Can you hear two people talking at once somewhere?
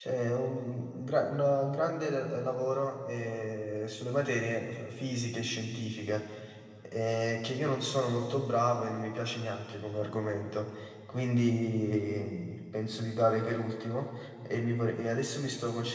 No

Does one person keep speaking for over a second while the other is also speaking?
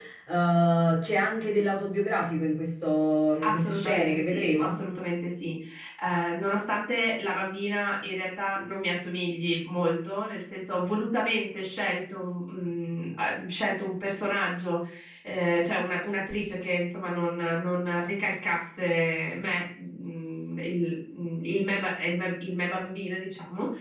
Yes, from 3.4 s

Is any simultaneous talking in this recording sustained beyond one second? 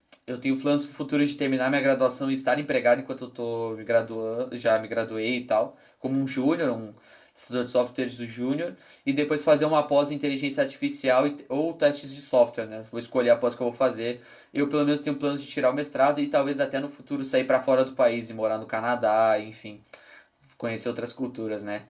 No

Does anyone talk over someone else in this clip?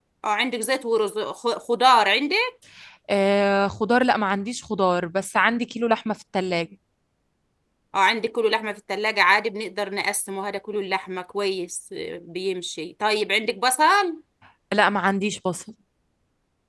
No

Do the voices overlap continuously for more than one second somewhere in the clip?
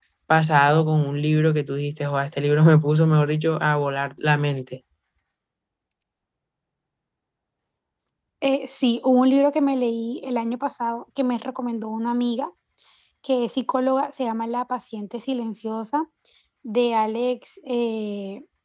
No

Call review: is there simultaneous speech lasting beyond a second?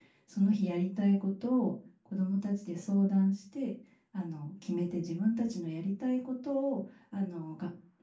No

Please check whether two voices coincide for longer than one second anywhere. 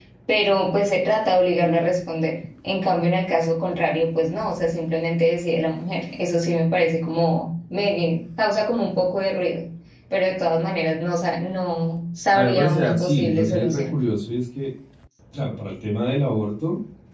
Yes, from 12.3 s

